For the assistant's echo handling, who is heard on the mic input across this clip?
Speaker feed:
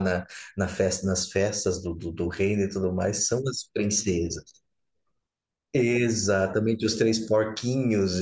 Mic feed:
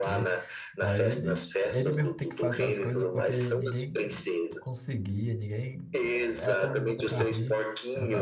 both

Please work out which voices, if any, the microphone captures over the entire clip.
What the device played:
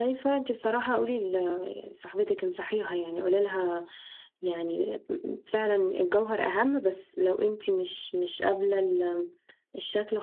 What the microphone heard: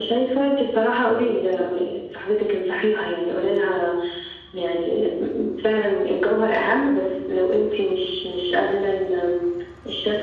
echo only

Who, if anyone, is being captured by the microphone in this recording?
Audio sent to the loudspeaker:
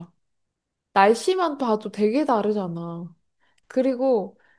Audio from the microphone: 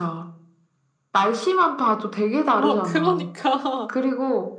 both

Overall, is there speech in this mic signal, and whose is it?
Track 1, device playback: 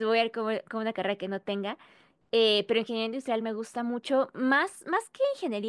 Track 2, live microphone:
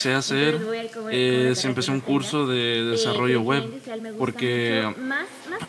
both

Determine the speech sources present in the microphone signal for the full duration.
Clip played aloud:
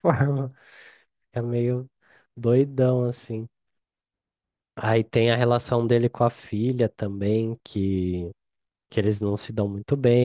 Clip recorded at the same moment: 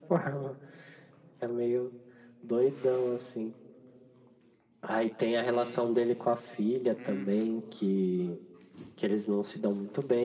both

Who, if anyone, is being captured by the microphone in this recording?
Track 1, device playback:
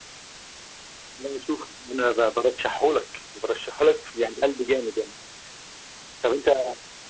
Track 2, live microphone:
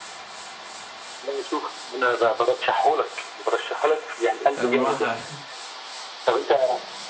both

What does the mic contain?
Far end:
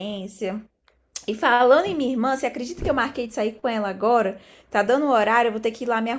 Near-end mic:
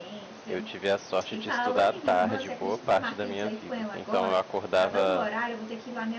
both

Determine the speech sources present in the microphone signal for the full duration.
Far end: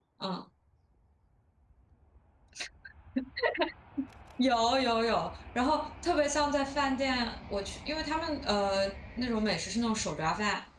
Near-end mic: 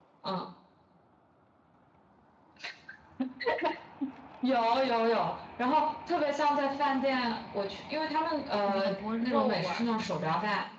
both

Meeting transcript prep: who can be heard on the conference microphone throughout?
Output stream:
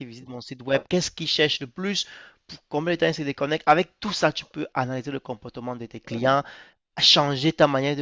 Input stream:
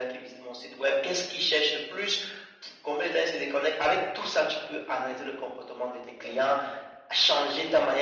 echo only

